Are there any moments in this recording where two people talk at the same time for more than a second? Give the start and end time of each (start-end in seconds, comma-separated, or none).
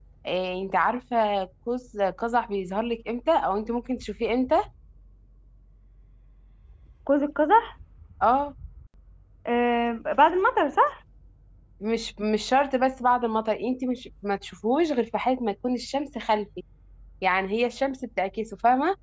none